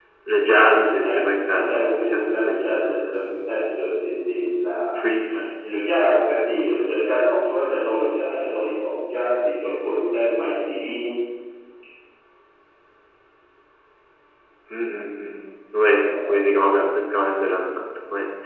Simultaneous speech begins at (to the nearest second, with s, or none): 1 s